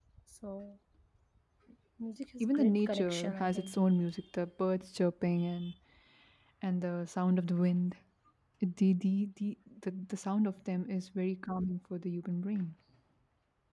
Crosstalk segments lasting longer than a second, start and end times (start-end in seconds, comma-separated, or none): 2.4-3.7